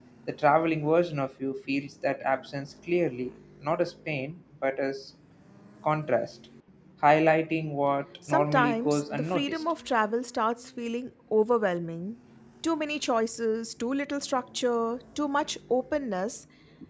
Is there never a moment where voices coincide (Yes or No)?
No